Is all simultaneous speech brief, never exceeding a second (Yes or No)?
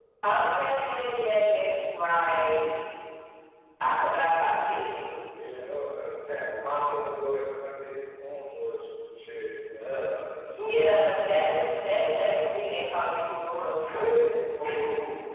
Yes